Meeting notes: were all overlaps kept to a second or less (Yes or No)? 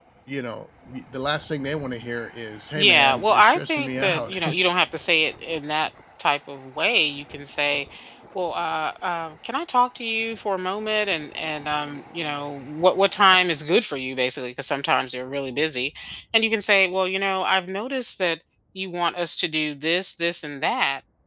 No